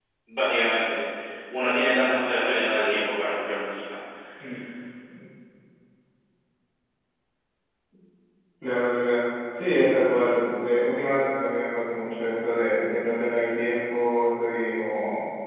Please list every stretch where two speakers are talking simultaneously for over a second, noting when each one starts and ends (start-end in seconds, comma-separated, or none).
none